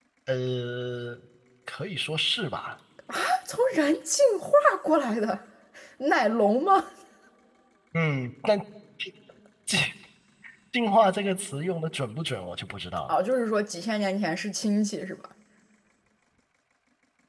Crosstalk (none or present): none